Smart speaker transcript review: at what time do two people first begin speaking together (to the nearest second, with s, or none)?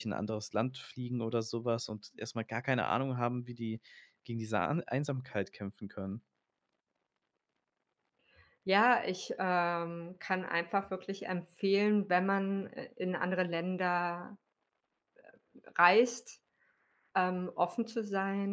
none